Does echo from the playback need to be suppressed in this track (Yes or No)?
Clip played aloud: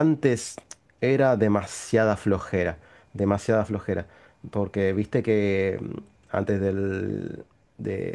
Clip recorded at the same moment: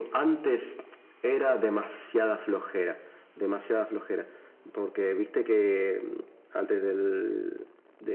Yes